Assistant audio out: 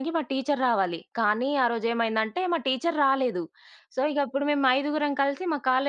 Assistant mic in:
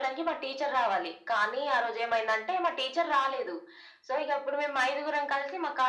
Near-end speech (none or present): none